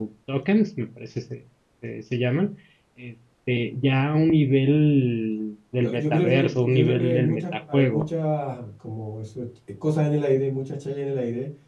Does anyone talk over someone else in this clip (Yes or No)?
Yes